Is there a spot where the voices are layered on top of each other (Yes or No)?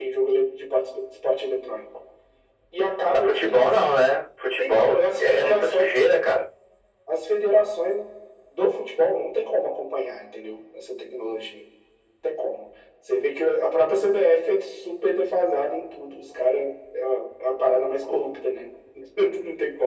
Yes